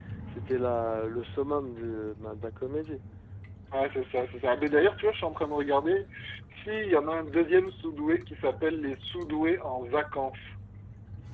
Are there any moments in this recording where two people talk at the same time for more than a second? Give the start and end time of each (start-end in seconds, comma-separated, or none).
none